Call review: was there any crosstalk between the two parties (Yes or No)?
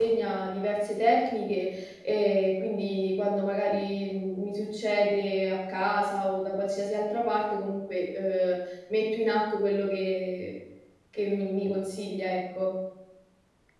No